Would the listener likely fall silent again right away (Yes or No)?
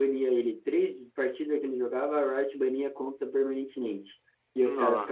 Yes